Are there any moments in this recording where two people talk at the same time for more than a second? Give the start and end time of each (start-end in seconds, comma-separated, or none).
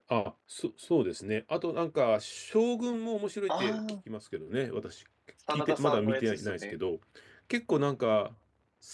5.5-6.7